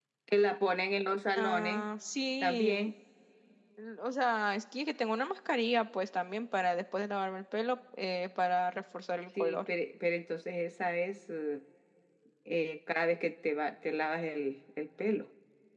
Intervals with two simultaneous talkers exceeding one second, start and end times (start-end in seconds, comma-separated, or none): none